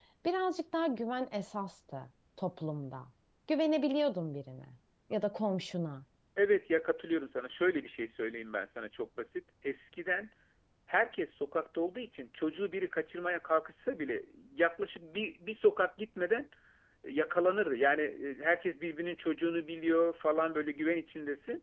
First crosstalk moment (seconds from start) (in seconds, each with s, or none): none